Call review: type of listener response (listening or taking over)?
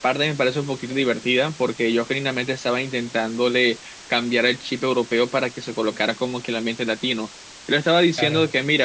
listening